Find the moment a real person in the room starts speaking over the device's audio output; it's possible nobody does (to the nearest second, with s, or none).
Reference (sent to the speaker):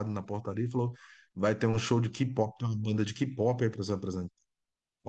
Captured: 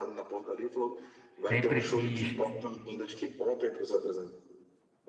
1 s